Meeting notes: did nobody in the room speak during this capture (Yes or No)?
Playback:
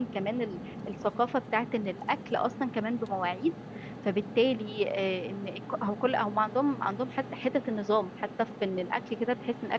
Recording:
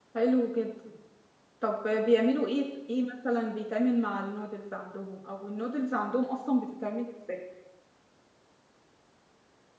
No